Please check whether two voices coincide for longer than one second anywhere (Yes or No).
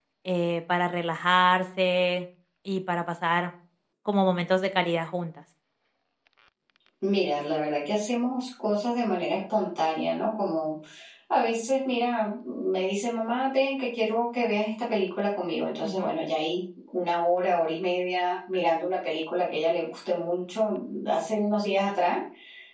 No